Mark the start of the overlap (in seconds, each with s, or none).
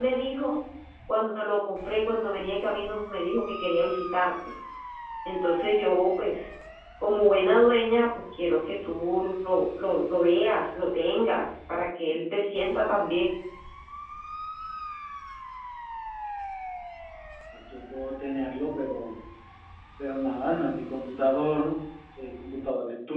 none